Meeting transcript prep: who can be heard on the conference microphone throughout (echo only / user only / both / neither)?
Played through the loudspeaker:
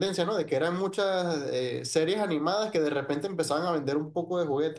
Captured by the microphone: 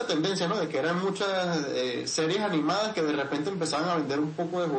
echo only